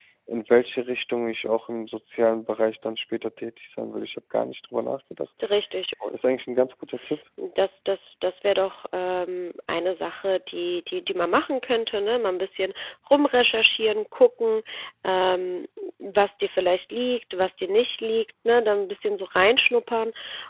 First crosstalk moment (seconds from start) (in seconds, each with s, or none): none